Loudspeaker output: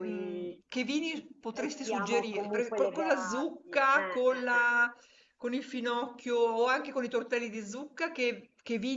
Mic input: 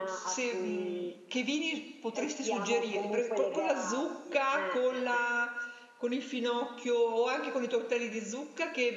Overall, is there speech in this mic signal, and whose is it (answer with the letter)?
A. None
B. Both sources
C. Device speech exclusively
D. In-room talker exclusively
C